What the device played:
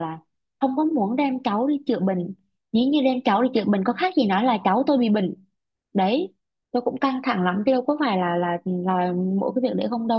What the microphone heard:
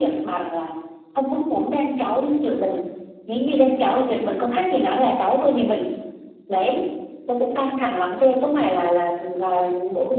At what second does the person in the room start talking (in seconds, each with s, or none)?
none